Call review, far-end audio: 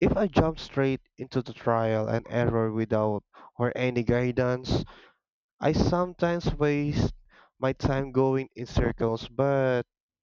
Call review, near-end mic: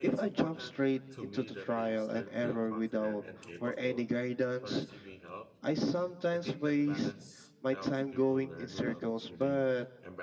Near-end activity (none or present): present